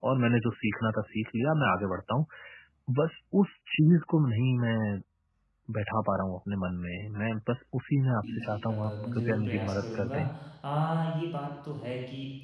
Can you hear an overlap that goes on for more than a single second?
Yes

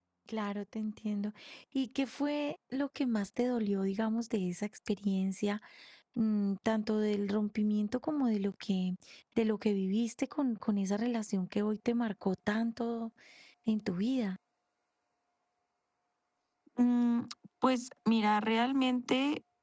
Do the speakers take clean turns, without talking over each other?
Yes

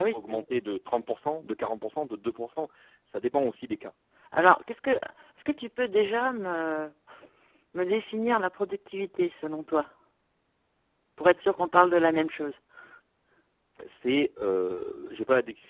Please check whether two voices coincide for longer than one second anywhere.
No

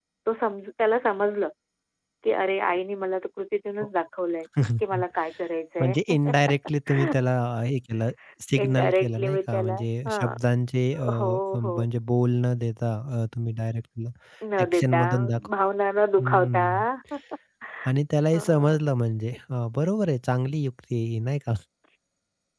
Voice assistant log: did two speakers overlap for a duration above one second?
Yes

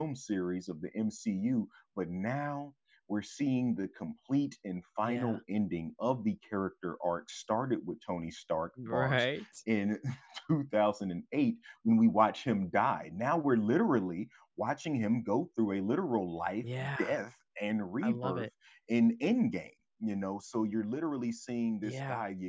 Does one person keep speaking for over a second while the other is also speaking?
No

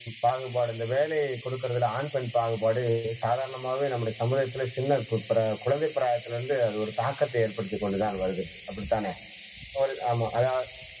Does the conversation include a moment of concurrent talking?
No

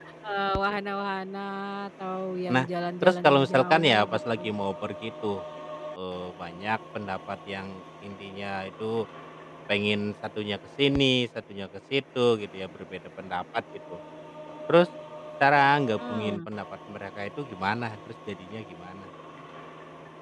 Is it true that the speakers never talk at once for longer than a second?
No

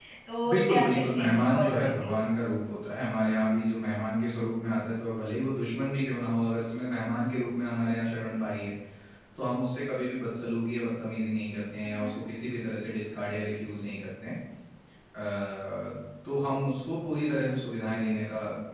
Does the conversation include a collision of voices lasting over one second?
Yes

